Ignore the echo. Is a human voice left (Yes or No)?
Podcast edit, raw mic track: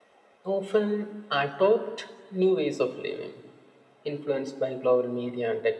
No